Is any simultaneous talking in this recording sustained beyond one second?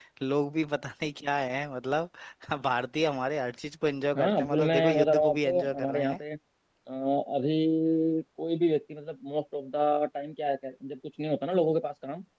Yes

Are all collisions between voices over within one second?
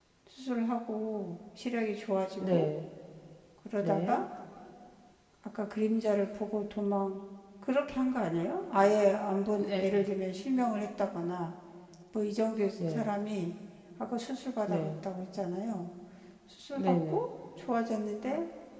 Yes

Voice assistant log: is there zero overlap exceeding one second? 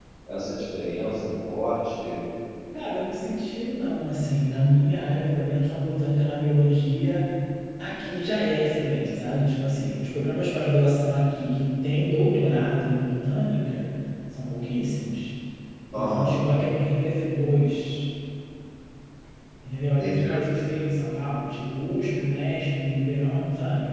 Yes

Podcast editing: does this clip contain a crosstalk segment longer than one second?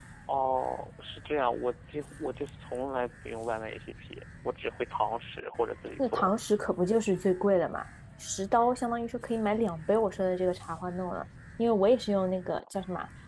No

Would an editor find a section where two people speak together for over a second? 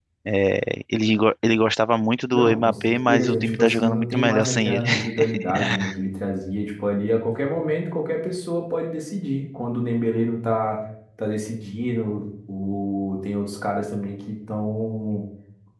Yes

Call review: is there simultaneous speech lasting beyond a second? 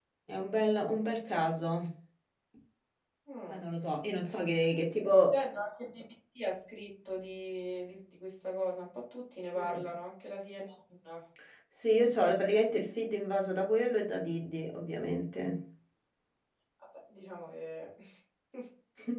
No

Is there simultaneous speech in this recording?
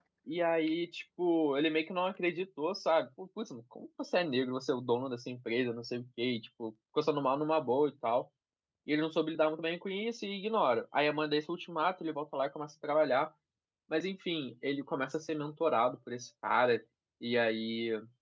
No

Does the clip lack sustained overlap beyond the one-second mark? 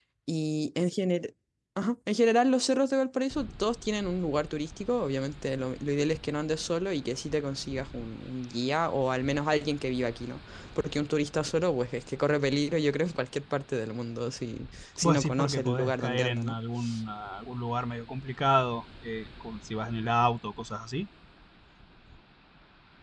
No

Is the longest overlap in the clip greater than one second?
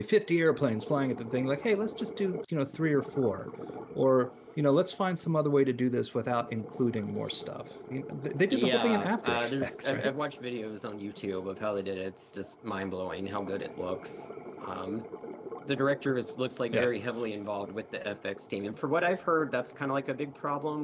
Yes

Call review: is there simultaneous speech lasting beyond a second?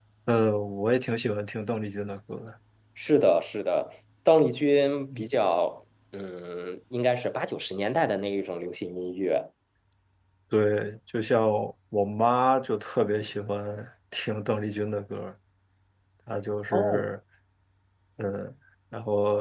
No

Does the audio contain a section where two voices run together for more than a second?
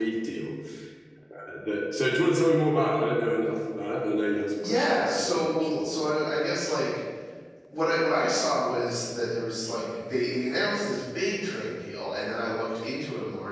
Yes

